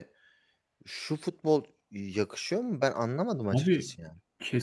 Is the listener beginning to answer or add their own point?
Yes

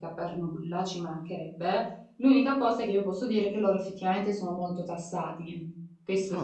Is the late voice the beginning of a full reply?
Yes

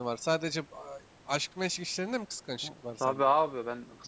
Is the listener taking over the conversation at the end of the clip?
Yes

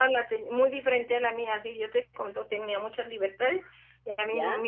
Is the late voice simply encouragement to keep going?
Yes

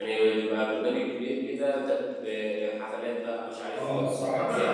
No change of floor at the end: No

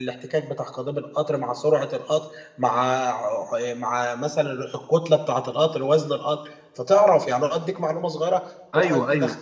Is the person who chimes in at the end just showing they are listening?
No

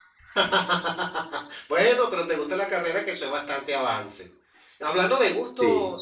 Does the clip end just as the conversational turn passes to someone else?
No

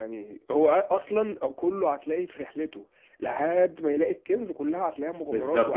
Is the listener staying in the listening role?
No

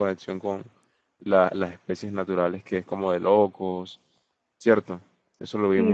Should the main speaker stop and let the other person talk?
Yes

